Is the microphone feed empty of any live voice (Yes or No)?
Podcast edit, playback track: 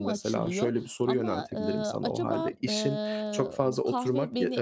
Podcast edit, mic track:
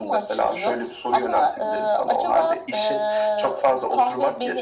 Yes